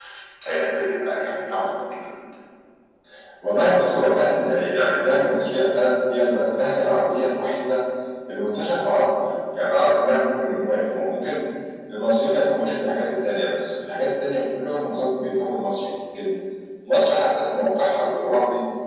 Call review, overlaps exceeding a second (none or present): none